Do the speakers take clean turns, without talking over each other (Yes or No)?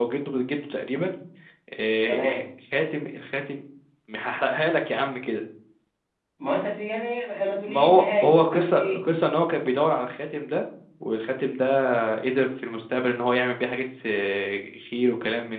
No